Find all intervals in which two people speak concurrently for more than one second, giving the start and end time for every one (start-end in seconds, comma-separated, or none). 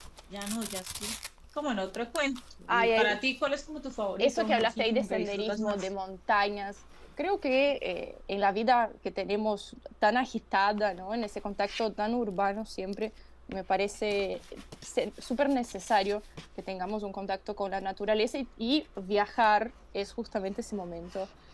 4.2-5.9